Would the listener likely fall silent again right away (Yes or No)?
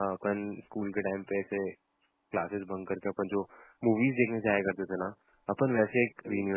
Yes